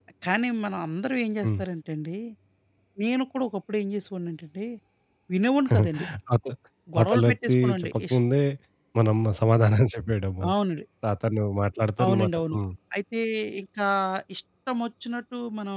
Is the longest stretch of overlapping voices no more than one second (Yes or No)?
No